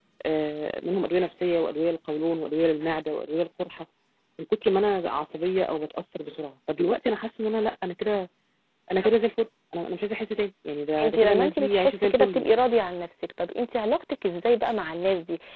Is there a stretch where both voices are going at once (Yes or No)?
Yes